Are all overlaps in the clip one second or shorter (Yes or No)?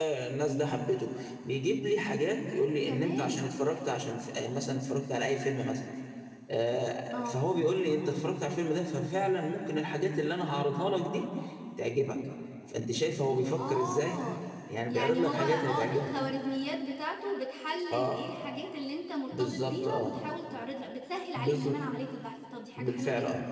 No